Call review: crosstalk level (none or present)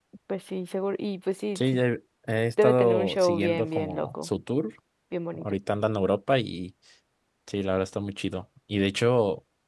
present